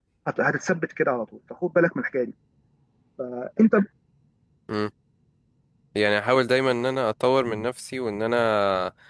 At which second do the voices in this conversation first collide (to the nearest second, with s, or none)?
none